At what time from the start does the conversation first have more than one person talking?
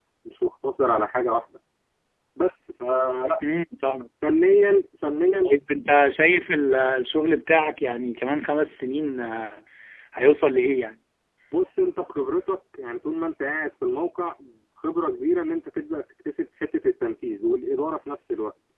none

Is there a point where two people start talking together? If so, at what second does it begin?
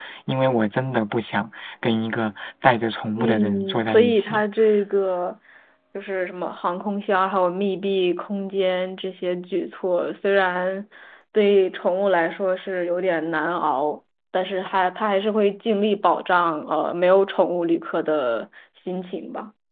3.2 s

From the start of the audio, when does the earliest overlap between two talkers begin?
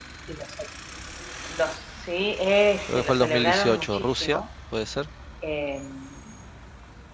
2.9 s

